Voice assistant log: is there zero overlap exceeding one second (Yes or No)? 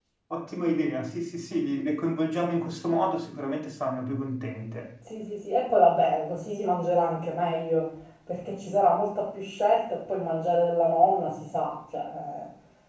Yes